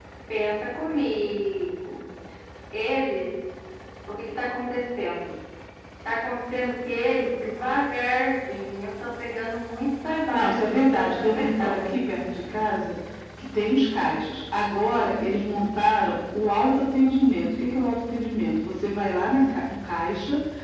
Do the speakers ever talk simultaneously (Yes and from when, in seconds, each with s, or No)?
Yes, from 10.3 s